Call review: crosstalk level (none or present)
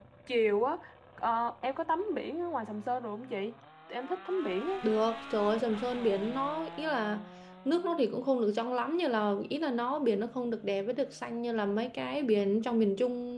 none